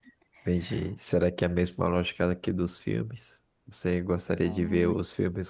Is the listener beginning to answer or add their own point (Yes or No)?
No